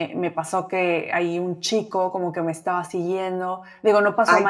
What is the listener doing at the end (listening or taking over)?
listening